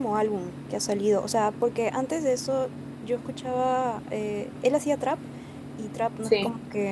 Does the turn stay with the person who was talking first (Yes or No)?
Yes